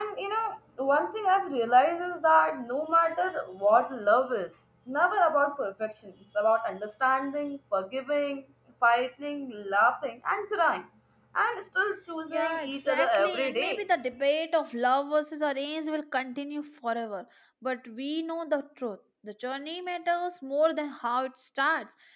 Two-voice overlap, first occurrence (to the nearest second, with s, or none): 12 s